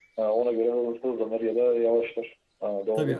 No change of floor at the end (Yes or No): No